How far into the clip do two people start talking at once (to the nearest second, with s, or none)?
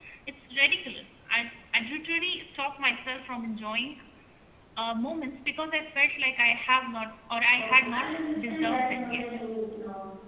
8 s